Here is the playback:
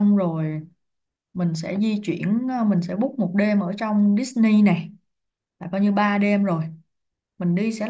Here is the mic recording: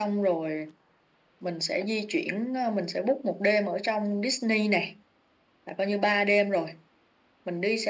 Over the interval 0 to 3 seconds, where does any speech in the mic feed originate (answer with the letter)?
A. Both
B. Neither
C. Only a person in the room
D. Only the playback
D